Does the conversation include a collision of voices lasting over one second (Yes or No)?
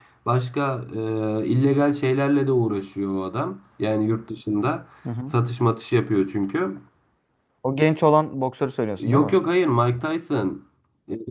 No